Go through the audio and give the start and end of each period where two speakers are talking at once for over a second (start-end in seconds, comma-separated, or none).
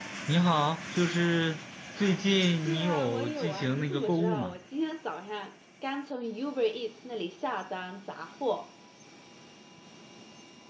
2.6-4.6